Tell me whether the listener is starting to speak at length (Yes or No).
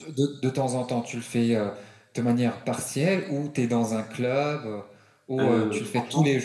Yes